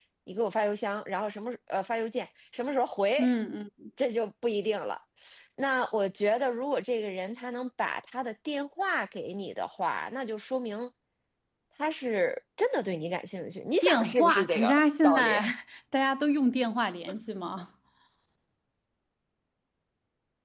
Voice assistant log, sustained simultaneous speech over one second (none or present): present